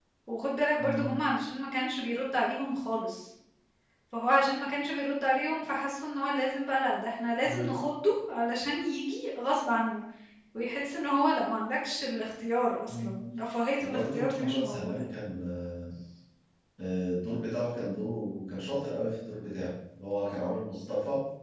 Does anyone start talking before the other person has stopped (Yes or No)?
Yes